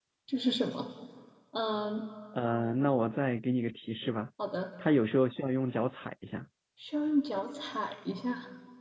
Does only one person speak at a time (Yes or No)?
Yes